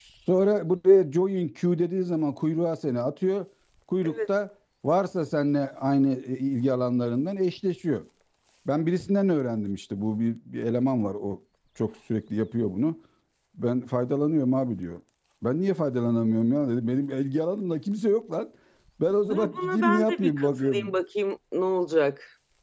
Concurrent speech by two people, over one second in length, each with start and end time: 19.3-20.9

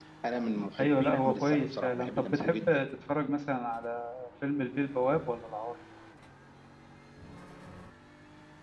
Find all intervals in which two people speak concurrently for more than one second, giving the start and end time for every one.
0.8-2.8

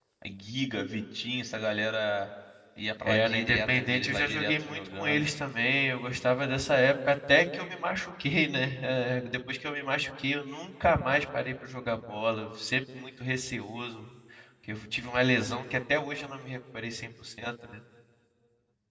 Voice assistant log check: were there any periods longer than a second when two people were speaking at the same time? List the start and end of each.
3.1-5.3

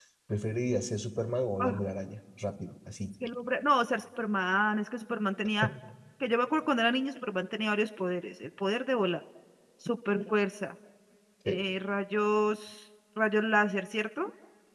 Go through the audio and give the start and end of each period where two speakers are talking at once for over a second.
none

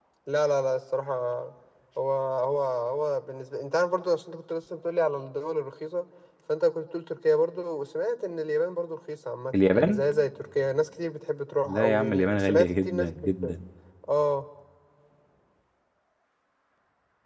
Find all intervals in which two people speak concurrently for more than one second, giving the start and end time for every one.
11.7-13.5

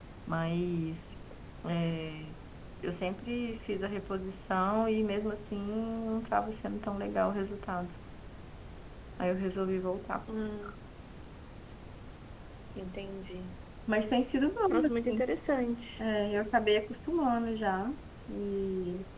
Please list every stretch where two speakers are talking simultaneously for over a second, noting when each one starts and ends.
none

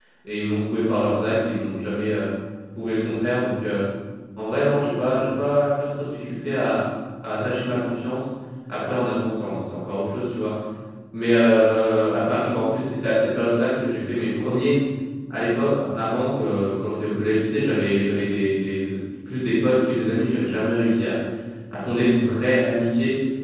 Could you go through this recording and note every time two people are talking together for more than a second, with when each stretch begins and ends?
none

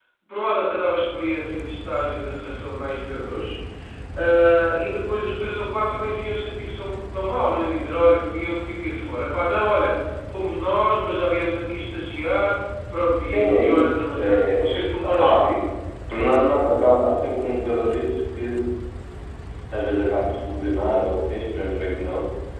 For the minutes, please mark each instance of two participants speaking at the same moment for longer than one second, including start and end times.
13.3-15.5

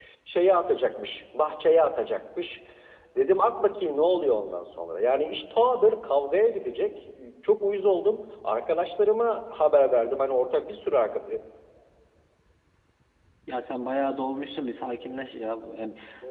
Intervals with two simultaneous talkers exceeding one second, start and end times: none

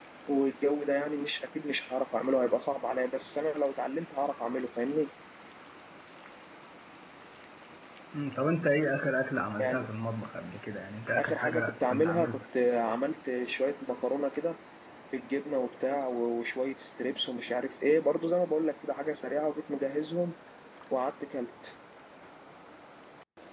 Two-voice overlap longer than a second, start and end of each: 11.2-12.4

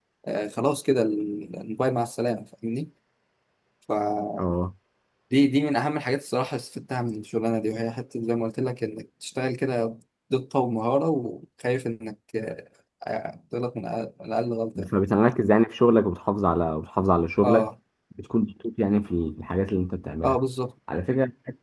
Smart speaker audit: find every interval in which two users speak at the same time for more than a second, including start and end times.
none

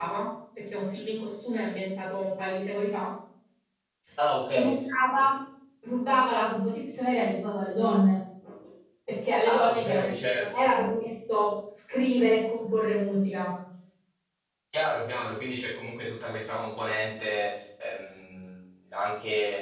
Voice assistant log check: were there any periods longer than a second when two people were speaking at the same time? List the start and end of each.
9.4-10.6

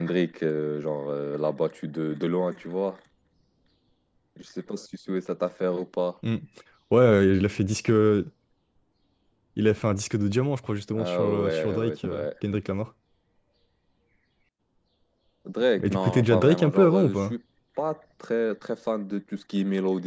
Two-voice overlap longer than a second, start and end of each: 10.9-12.3, 15.8-17.4

